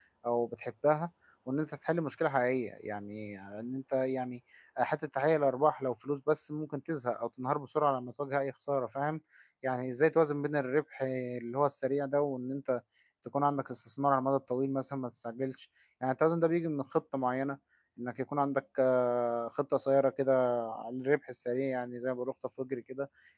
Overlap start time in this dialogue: none

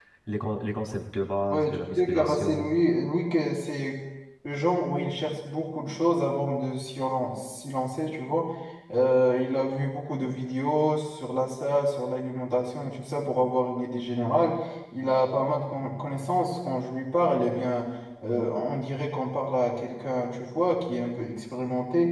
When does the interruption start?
1.5 s

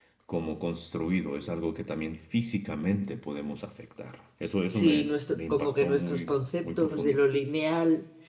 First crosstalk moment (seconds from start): 4.7 s

